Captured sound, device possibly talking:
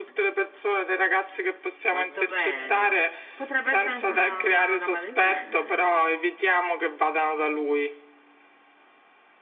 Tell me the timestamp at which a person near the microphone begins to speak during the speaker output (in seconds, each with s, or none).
1.9 s